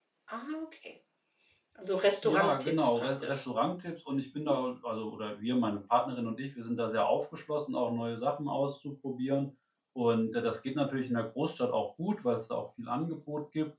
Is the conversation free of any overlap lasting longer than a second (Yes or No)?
No